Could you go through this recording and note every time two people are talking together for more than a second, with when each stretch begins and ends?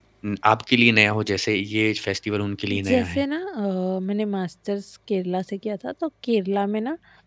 none

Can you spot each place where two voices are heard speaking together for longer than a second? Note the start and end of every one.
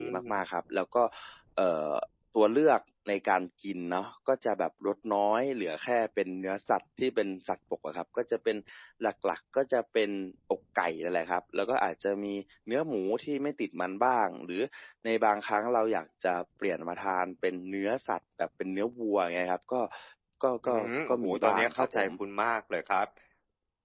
20.6-22.1

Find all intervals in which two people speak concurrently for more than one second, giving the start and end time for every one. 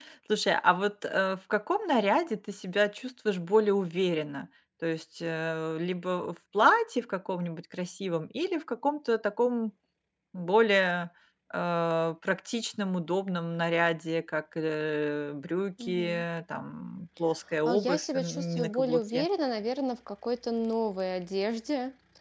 17.6-19.3

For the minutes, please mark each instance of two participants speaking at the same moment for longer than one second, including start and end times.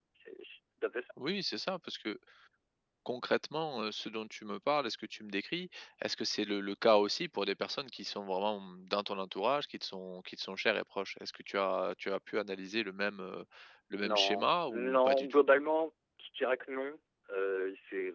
14.0-15.4

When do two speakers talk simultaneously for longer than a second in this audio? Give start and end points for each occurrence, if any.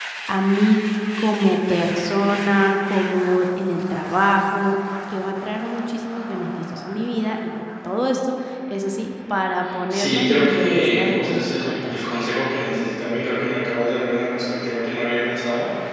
9.9-12.0

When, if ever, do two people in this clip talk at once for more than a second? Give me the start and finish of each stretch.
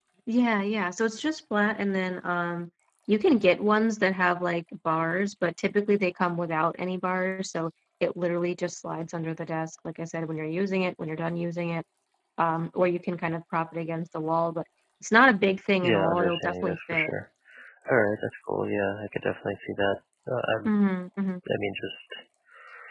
15.8-17.1

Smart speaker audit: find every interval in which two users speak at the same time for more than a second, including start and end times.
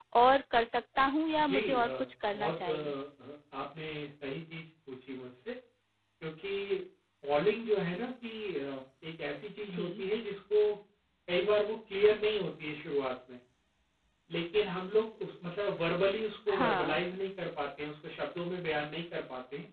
1.5-2.9

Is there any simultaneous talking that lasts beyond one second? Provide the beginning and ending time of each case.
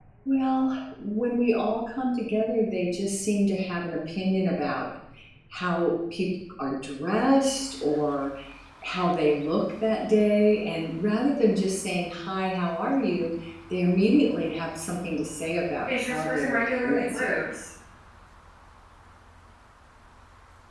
15.9-17.5

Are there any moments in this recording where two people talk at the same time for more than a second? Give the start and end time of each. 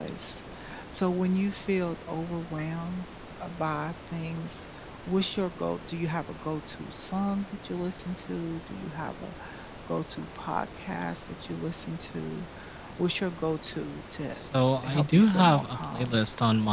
14.8-16.2

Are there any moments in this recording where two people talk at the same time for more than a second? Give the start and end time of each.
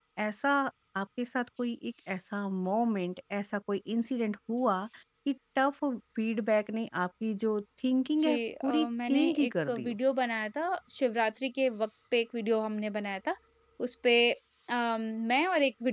8.2-9.9

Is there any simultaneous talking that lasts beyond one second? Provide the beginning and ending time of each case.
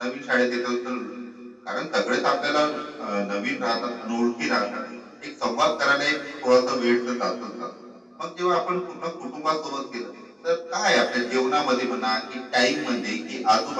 none

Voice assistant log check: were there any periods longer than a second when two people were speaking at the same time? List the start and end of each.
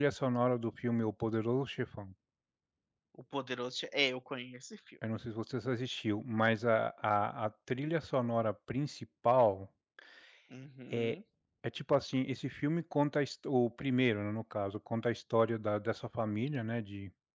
none

